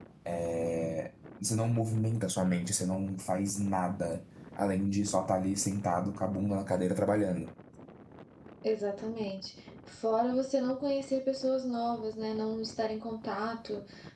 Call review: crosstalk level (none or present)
none